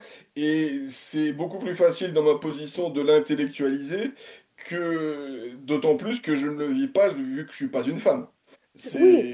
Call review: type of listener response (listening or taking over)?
taking over